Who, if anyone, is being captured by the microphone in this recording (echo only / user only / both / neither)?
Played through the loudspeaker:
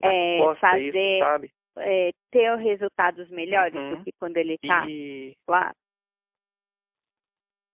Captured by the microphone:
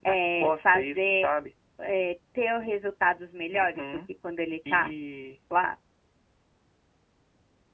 echo only